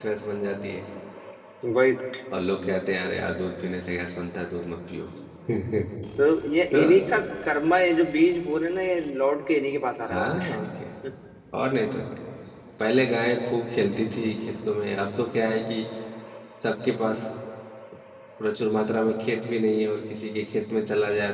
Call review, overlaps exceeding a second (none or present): none